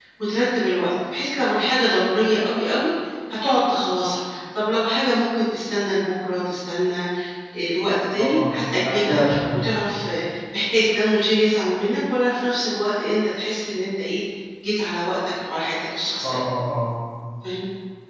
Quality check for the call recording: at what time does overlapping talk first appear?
8.2 s

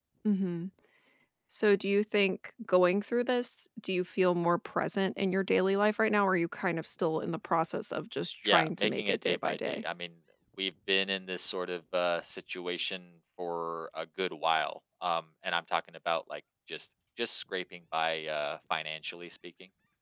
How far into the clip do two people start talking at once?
8.4 s

